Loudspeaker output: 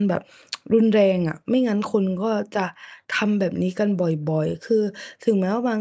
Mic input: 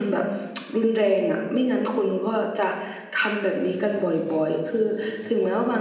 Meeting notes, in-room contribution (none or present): present